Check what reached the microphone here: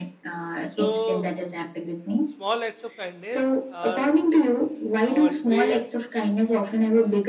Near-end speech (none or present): present